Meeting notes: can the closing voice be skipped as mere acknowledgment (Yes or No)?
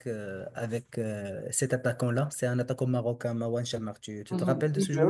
No